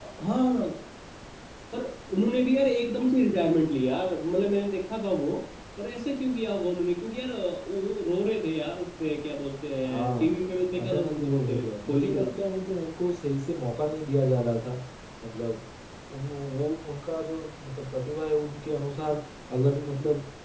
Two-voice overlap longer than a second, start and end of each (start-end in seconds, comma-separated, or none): 9.8-12.2